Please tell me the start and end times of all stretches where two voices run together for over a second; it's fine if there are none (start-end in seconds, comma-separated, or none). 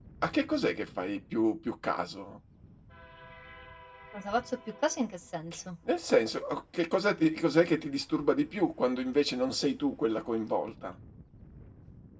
none